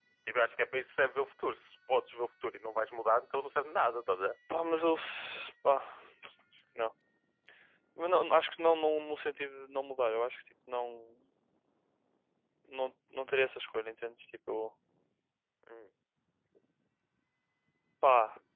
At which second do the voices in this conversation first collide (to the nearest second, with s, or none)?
none